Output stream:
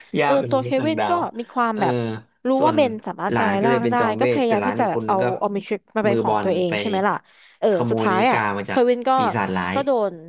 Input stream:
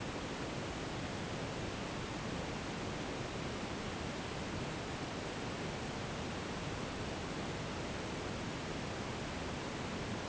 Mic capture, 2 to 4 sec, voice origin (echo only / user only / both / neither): neither